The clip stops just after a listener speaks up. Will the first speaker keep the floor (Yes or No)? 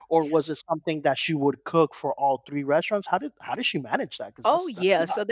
No